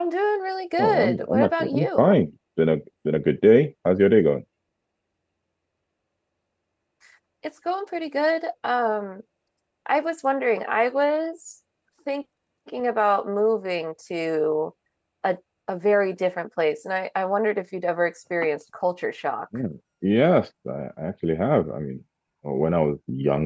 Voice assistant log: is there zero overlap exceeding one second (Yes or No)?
No